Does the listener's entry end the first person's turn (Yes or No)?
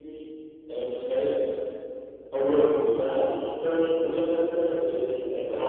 Yes